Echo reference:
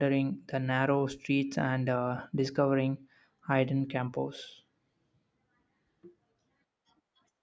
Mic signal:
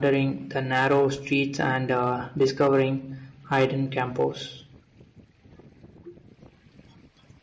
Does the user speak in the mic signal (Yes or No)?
No